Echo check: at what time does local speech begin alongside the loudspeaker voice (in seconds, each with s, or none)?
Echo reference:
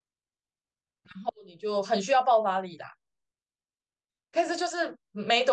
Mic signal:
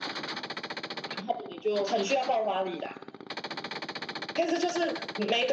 none